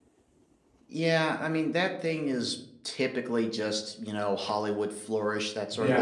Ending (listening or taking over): listening